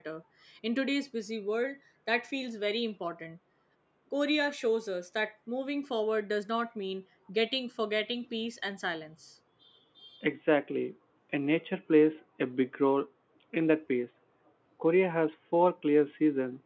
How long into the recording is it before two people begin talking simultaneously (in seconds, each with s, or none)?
none